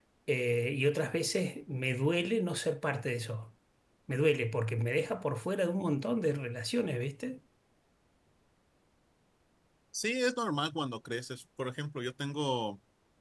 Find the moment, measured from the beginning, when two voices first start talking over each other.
none

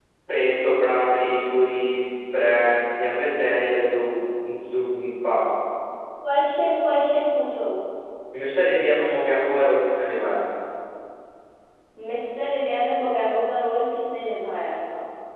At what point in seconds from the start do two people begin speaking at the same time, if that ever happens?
none

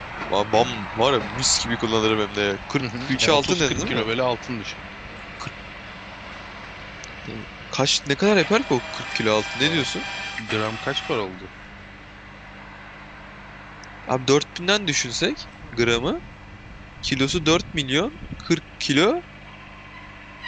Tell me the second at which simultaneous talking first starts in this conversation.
2.8 s

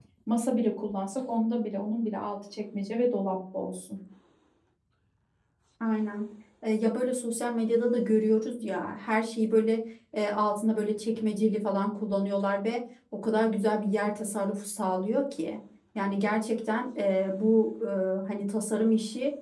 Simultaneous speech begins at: none

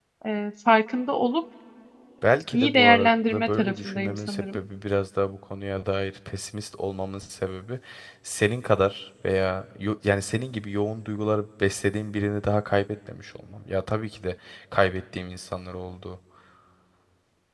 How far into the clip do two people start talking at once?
2.5 s

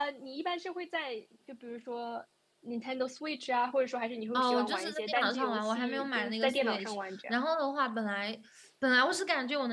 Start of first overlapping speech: 4.3 s

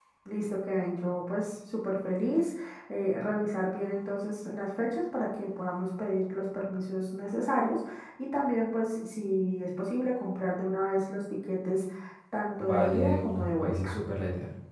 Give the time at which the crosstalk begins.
12.6 s

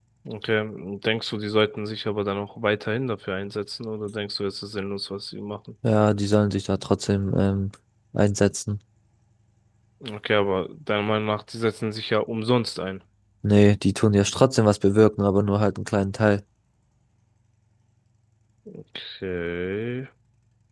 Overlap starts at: none

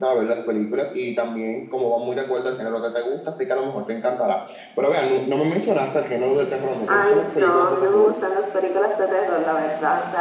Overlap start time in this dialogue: 6.9 s

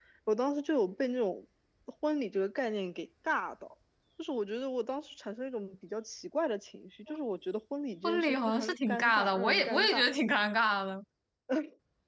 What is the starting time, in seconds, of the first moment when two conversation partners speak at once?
8.0 s

